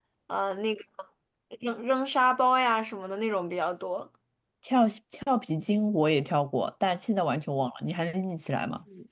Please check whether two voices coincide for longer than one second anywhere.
No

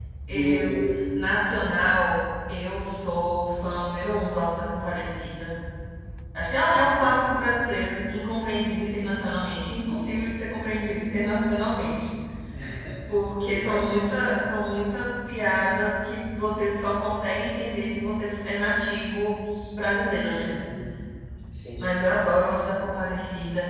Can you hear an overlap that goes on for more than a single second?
No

